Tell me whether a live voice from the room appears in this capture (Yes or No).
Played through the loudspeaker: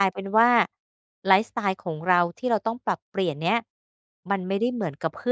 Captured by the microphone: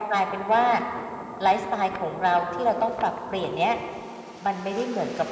No